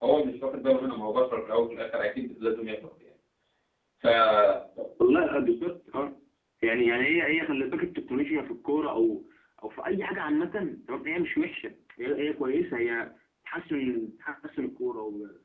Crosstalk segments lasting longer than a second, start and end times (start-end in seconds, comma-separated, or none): none